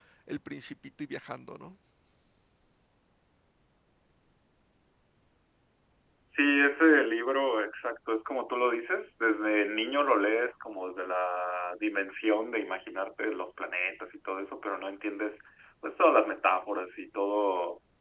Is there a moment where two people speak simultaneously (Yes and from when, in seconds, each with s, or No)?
No